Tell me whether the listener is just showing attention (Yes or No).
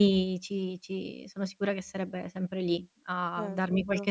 Yes